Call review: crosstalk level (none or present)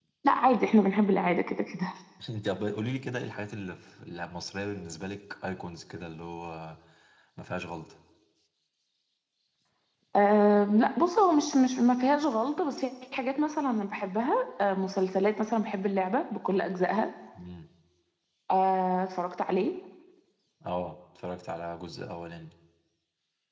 none